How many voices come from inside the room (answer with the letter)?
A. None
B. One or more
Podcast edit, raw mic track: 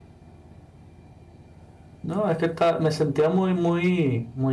B